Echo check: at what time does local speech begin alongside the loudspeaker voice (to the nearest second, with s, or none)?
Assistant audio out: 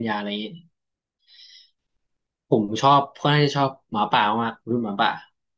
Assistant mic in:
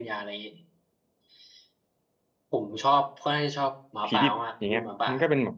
4 s